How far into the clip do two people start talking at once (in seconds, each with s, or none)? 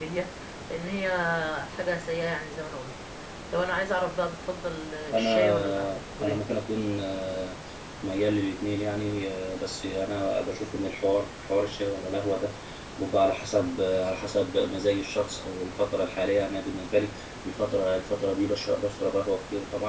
5.1 s